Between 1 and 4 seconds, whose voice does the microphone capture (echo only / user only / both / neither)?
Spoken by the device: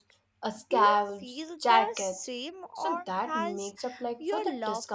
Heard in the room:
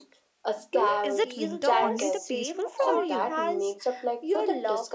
both